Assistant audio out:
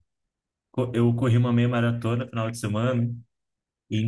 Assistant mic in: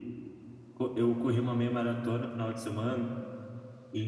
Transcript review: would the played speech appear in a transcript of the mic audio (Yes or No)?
Yes